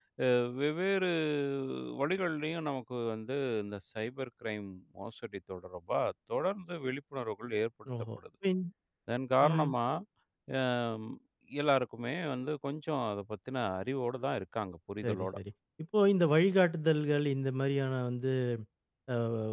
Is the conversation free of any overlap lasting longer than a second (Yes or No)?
Yes